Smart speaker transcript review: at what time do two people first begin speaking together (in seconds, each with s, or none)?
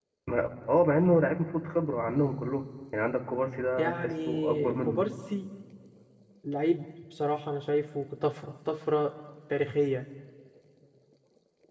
3.8 s